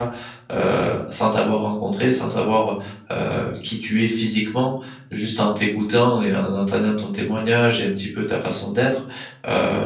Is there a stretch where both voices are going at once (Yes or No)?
No